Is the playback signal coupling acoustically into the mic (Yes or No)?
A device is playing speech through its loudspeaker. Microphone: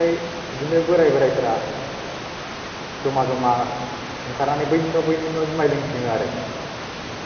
No